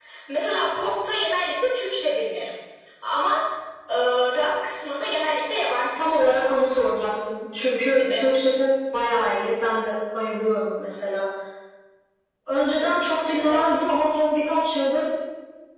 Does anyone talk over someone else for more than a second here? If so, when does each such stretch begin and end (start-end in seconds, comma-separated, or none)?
none